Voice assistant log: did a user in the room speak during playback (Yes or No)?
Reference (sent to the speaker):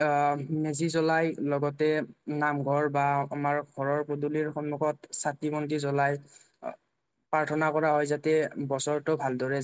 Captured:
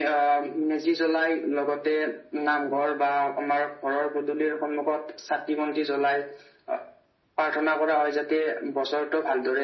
No